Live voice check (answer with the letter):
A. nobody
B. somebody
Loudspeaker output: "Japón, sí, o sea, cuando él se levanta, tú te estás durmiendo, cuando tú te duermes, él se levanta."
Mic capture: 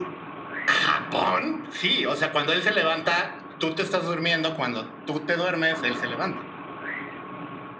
A